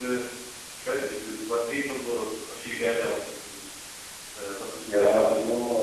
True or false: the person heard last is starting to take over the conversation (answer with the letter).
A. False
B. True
B